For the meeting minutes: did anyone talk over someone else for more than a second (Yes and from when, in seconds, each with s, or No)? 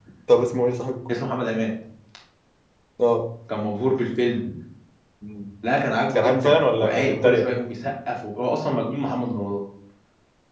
Yes, from 6.1 s